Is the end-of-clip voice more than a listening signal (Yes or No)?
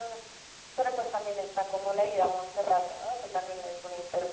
Yes